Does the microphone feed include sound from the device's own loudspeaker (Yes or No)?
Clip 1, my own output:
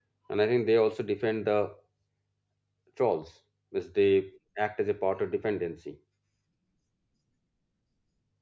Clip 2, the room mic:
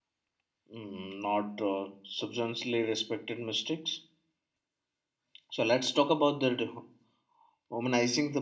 No